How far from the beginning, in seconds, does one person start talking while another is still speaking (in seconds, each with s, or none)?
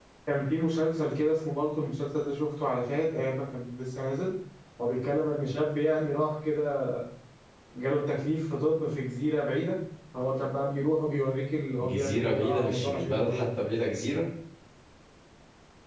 11.8 s